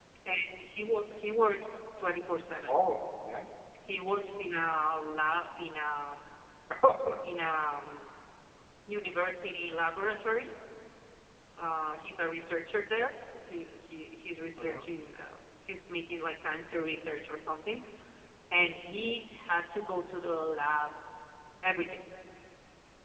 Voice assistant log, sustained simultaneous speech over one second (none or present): none